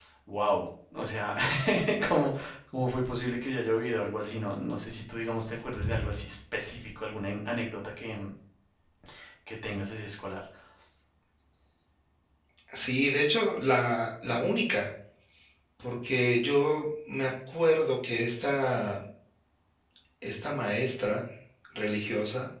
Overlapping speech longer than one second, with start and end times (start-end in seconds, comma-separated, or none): none